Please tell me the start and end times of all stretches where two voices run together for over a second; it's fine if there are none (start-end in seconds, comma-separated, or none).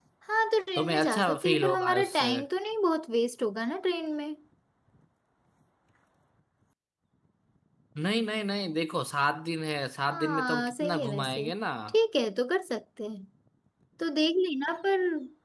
0.8-2.3, 10.1-11.5